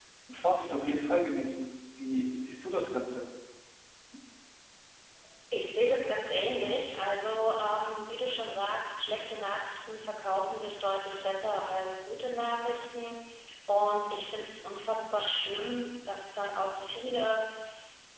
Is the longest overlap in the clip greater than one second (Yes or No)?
No